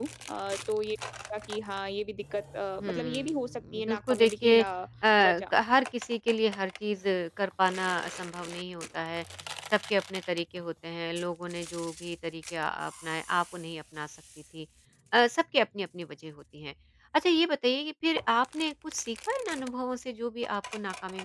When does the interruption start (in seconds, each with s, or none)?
2.8 s